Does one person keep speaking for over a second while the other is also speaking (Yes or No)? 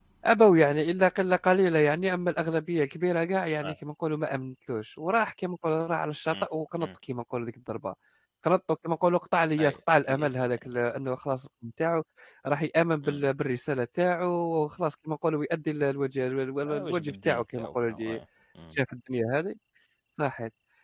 Yes